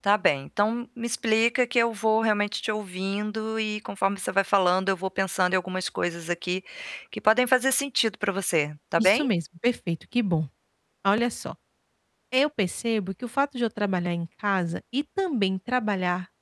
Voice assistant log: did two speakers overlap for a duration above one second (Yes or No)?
No